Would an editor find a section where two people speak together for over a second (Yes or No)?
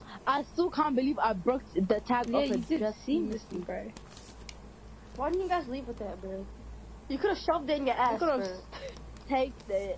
Yes